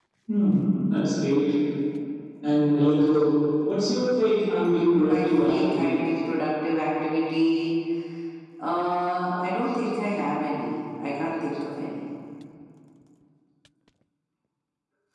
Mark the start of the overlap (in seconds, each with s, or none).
4.6 s